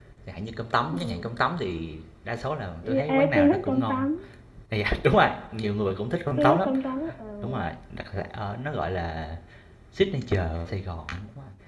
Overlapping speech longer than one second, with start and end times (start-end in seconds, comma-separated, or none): 2.8-4.0